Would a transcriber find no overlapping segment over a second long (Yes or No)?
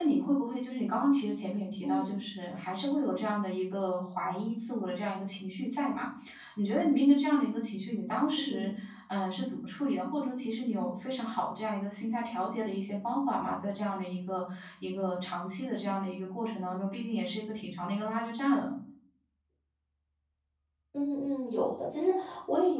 Yes